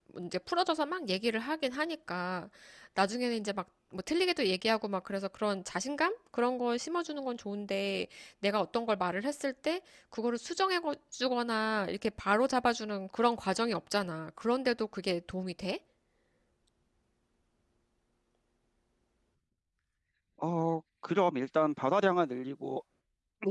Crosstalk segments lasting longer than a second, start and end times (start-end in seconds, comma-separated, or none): none